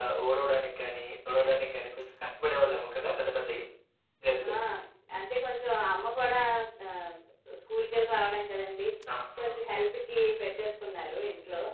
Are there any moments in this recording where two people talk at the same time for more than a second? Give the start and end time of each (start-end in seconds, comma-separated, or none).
none